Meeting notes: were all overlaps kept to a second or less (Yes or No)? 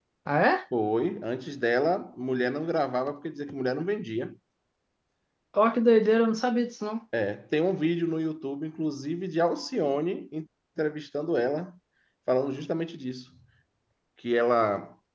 Yes